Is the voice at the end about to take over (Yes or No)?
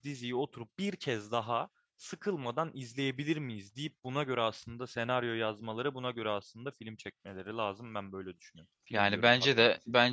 Yes